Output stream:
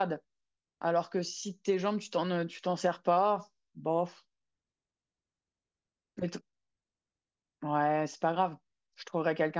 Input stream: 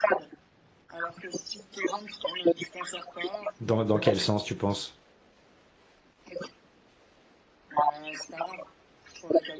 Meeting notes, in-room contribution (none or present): present